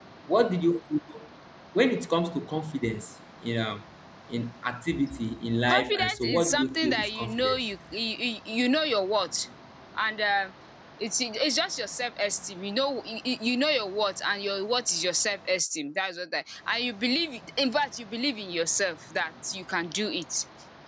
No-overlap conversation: No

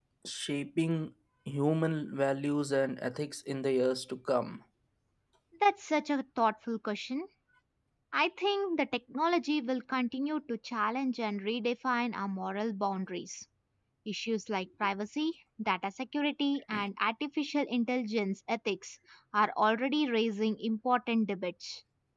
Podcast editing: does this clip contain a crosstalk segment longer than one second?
No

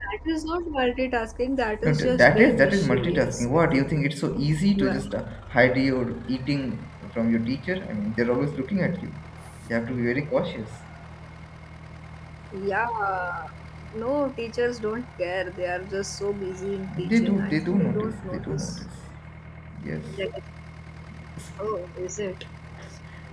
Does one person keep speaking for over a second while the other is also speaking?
Yes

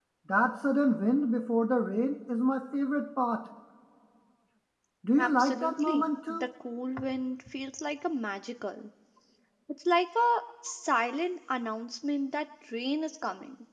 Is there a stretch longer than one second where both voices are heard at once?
Yes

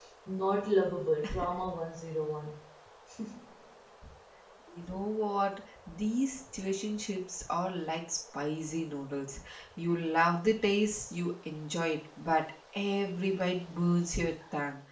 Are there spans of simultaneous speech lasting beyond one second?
No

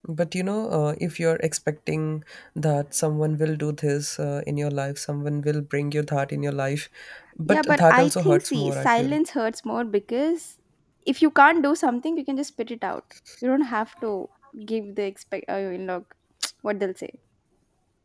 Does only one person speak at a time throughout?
No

